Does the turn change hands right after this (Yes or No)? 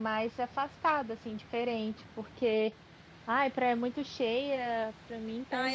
Yes